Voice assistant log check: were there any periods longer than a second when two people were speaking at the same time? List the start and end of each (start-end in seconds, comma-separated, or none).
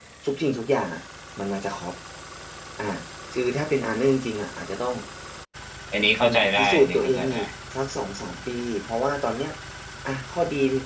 6.2-7.5